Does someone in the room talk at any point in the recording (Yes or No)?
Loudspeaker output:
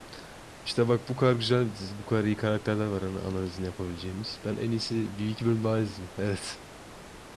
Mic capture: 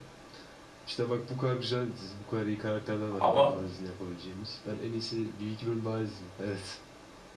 Yes